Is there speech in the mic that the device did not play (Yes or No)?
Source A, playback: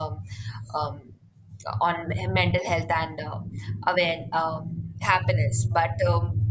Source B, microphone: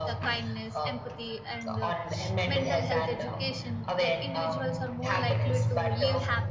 Yes